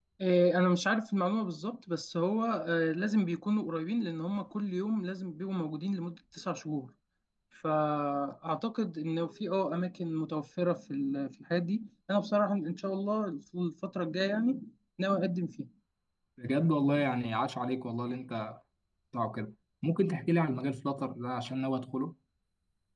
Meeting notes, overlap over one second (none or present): none